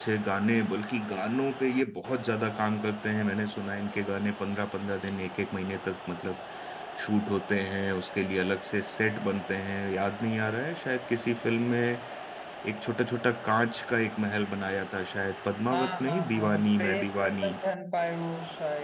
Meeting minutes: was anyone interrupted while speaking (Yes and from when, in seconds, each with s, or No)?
Yes, from 15.7 s